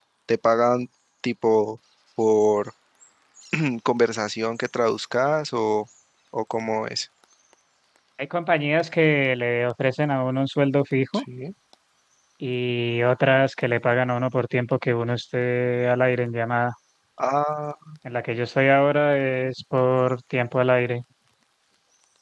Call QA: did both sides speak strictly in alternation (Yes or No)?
Yes